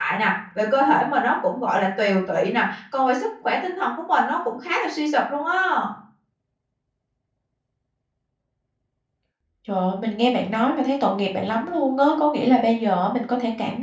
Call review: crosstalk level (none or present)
none